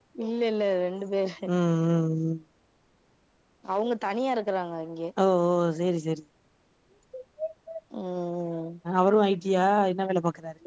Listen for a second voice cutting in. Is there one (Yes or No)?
No